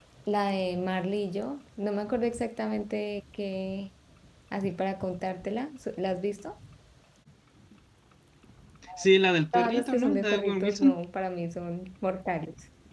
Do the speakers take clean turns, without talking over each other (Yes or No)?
No